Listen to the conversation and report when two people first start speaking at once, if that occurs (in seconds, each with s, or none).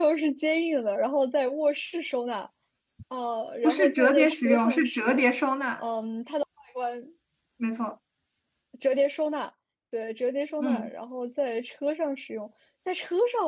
3.6 s